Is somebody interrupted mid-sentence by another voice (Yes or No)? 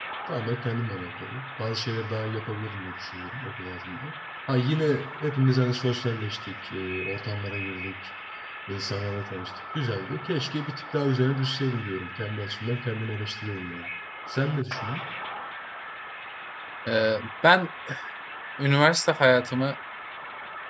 No